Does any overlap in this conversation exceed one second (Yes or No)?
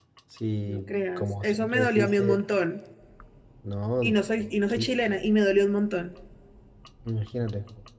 Yes